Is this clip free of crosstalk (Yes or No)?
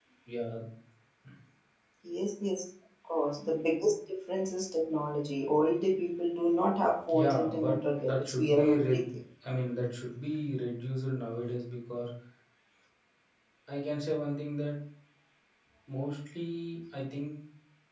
No